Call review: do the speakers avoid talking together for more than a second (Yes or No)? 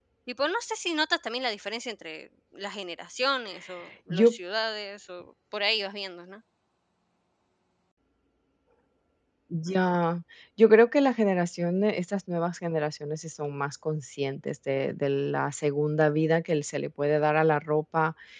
Yes